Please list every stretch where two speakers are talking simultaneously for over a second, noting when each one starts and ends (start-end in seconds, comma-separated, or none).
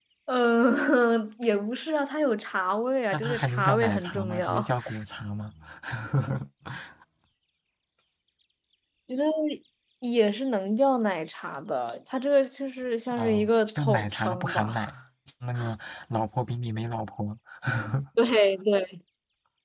3.1-4.7, 13.1-14.8